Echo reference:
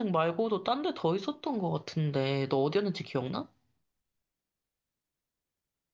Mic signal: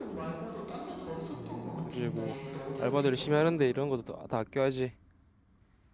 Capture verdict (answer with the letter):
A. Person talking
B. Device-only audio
A